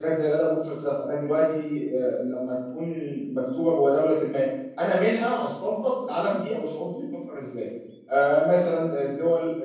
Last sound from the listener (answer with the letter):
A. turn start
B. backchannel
B